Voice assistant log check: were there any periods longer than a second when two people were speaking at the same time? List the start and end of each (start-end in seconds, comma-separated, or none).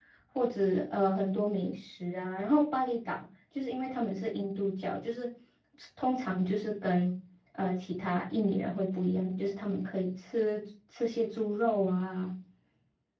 none